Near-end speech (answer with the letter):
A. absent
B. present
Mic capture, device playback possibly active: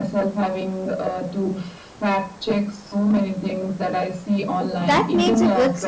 B